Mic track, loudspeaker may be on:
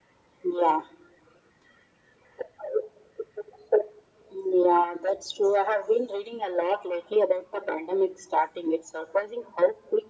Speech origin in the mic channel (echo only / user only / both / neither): echo only